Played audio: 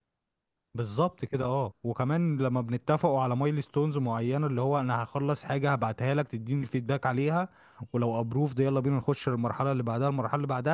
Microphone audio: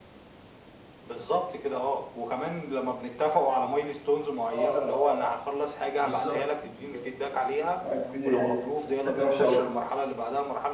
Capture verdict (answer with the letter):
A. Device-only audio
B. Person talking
B